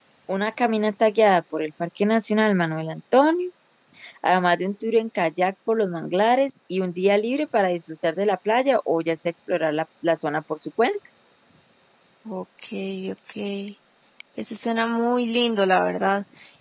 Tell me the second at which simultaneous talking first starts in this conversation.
none

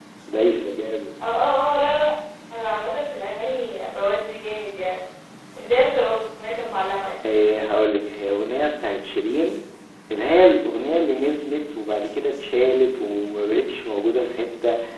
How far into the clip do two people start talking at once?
none

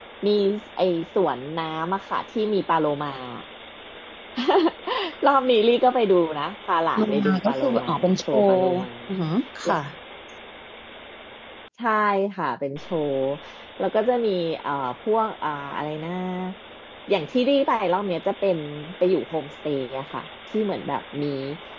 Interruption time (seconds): 7.0 s

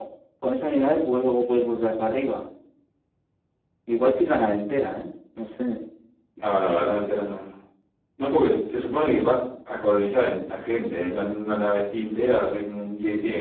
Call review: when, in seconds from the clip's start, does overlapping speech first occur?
none

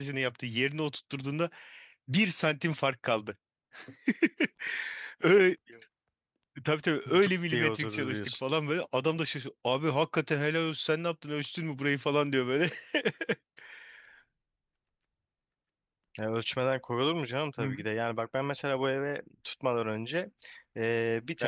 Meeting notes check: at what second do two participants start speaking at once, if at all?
7.2 s

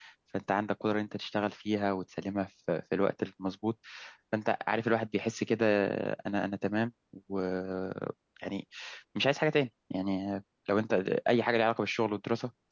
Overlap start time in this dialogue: none

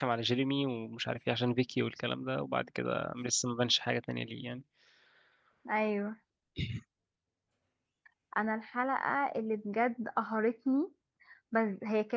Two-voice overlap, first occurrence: none

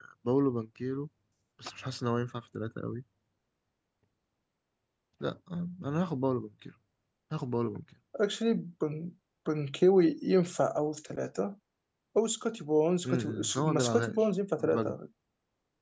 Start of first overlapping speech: 13.0 s

